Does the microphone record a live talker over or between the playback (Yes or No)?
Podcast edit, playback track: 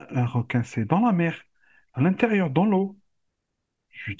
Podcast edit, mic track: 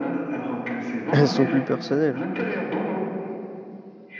Yes